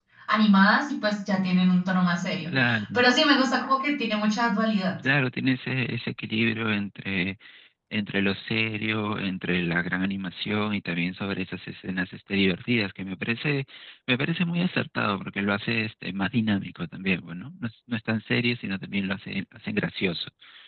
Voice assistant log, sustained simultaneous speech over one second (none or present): none